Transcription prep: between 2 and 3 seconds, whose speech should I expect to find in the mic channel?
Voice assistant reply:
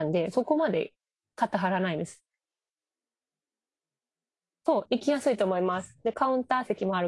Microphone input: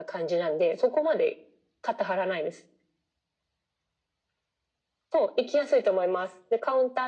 echo only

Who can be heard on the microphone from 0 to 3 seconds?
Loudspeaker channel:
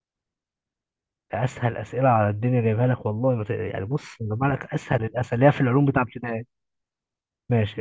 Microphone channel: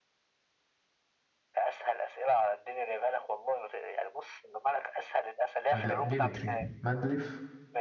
echo only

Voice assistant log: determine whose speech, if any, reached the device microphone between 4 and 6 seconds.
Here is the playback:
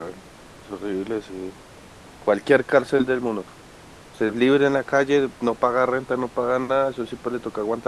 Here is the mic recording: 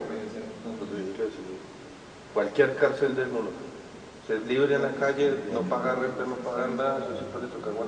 both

